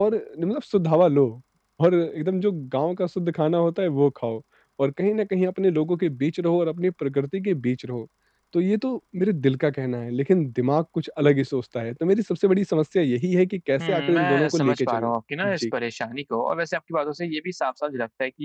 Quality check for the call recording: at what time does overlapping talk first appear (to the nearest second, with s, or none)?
14 s